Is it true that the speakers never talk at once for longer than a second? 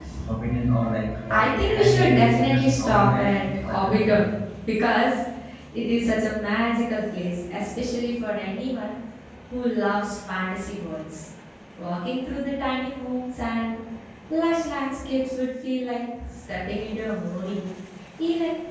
No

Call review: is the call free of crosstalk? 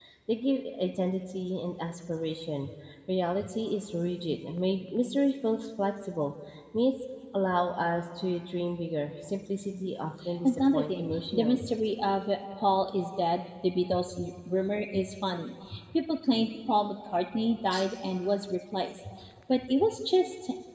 No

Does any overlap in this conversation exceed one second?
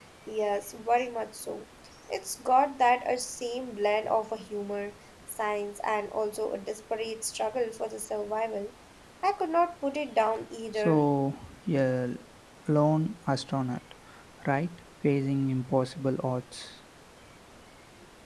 No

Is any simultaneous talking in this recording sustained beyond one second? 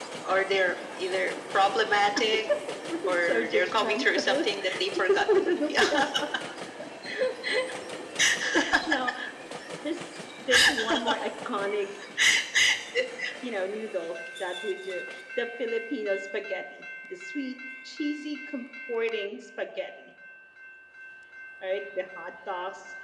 Yes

